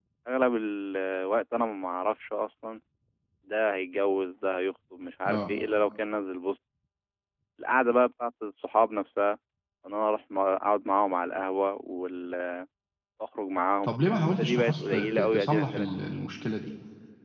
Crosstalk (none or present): present